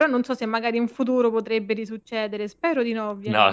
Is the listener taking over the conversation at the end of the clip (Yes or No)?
Yes